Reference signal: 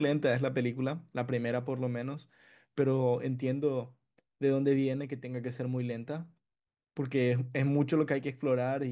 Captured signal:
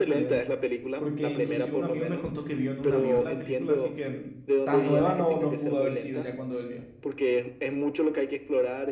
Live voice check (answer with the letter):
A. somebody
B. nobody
A